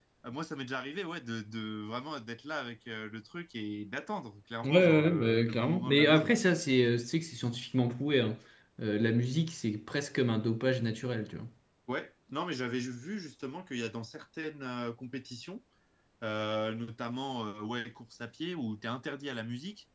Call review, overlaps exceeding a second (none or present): present